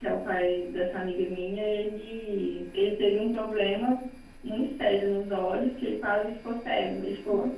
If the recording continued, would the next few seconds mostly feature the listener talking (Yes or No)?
No